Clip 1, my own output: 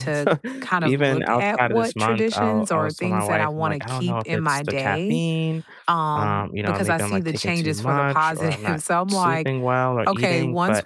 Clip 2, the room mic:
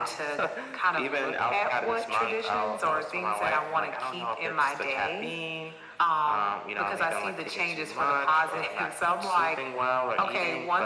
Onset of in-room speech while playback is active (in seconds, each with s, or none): none